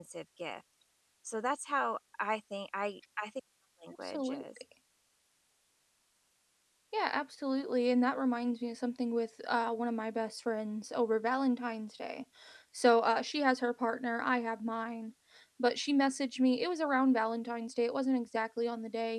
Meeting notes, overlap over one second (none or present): none